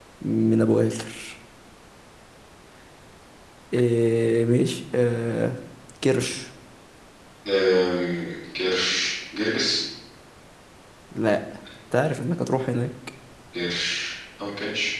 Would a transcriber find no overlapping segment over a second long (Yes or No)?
Yes